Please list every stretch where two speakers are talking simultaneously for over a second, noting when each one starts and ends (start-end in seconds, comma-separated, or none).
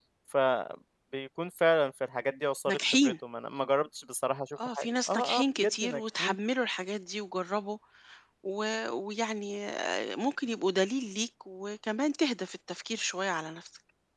4.8-6.3